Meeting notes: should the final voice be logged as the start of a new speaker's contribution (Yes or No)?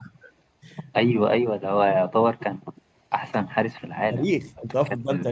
Yes